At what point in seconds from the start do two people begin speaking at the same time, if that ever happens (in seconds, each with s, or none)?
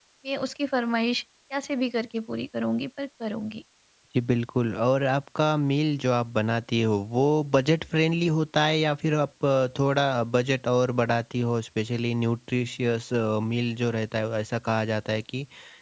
none